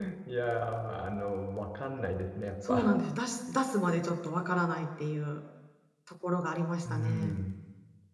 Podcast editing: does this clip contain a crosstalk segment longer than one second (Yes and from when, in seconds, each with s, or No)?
No